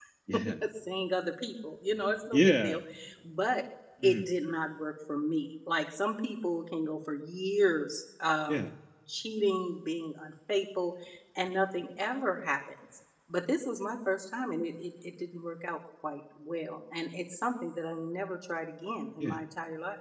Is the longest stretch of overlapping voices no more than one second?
Yes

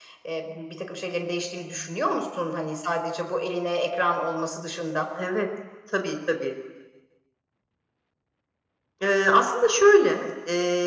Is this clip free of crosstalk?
Yes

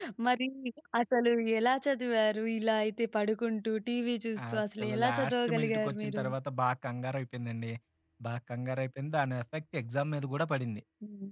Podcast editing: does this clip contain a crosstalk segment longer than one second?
Yes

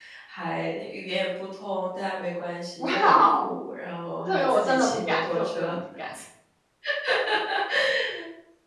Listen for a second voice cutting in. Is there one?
Yes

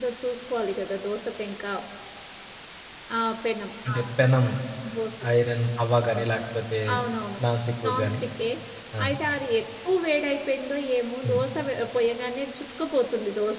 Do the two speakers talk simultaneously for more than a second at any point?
No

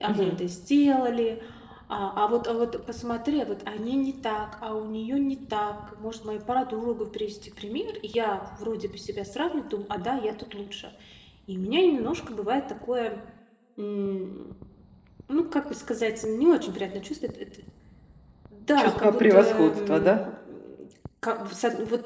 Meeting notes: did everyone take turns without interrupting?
No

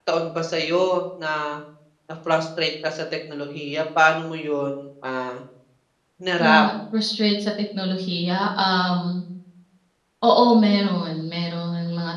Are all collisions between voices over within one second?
Yes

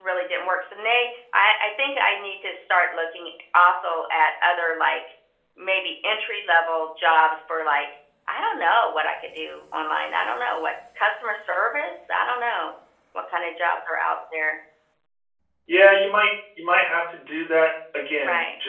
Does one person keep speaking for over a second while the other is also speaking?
No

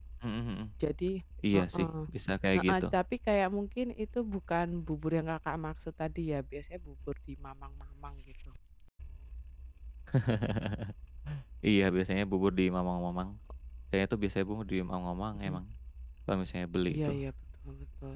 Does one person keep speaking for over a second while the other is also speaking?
No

